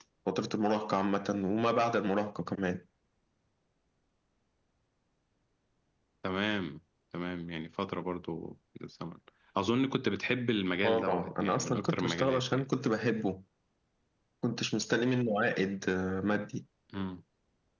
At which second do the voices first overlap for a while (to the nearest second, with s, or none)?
11 s